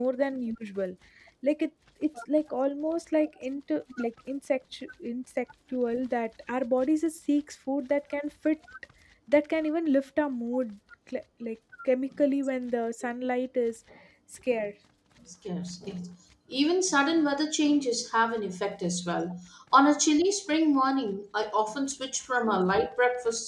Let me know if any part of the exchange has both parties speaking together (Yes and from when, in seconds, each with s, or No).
No